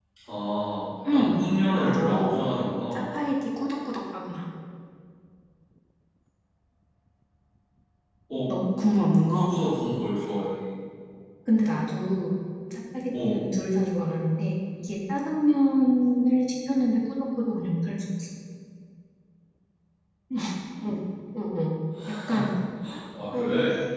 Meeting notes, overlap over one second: present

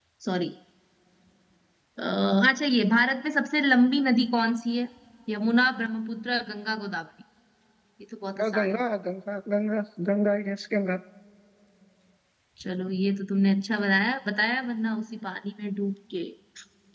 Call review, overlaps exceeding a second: none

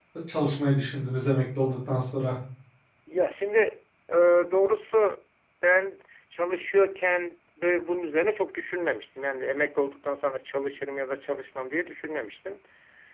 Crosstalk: none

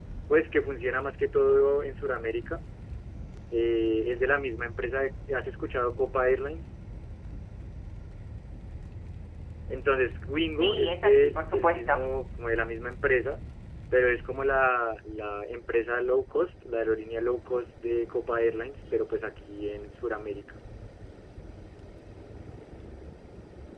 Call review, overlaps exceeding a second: present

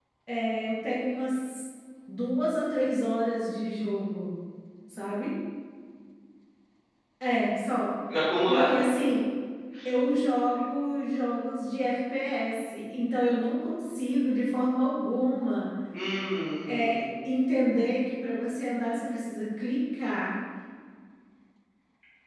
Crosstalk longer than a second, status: none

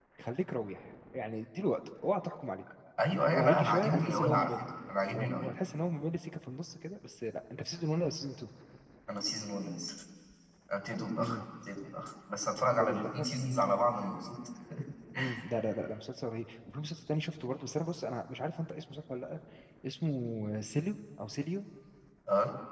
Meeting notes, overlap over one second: present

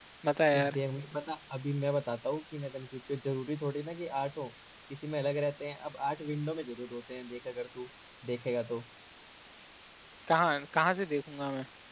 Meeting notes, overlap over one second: none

